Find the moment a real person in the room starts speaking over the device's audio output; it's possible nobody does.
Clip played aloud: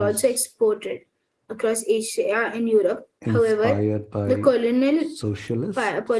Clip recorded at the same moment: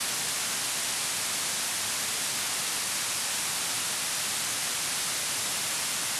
none

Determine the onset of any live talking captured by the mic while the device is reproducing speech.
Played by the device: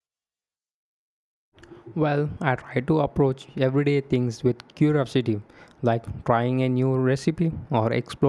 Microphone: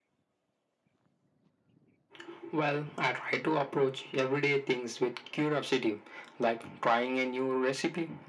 none

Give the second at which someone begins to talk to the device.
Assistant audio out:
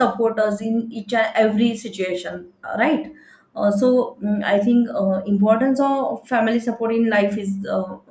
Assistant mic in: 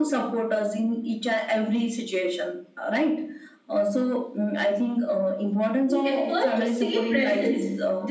5.8 s

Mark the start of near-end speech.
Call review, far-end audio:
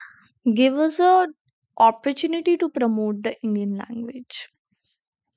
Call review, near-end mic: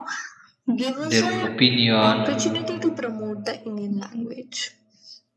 1.1 s

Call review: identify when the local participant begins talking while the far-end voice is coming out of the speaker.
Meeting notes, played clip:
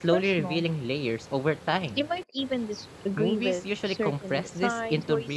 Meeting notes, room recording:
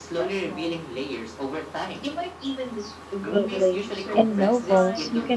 3.3 s

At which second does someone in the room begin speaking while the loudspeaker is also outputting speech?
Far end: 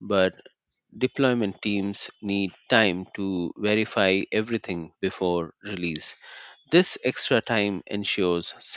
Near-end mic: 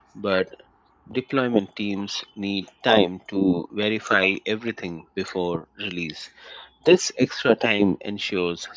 none

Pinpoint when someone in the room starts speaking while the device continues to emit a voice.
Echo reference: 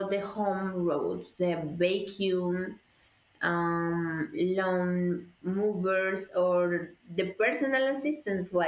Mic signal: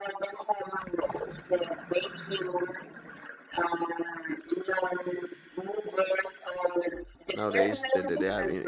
7.3 s

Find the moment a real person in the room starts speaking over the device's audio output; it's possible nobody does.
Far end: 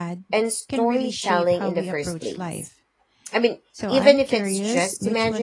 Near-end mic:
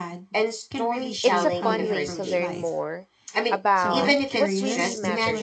1.2 s

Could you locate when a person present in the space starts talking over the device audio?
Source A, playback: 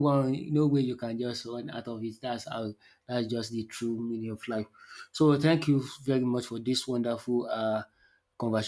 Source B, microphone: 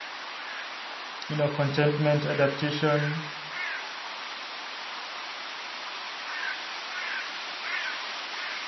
1.3 s

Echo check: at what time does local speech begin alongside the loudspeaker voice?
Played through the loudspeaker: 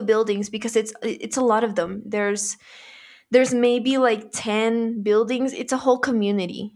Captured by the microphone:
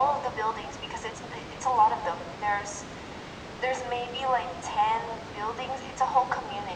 none

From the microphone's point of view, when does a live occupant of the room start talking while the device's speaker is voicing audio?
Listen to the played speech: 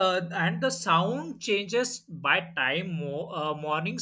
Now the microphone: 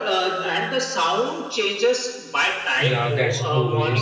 2.8 s

